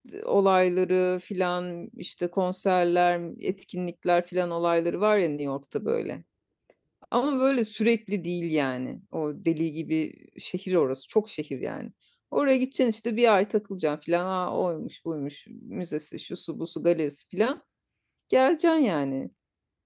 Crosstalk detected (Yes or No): No